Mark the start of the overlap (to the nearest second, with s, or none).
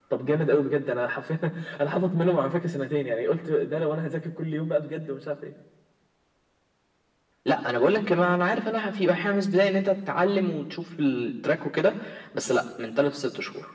none